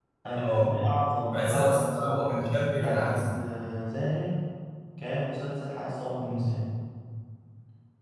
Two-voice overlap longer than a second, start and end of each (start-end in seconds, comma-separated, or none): 1.3-3.4